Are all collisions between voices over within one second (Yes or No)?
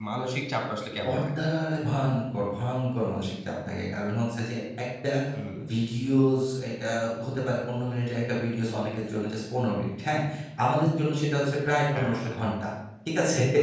Yes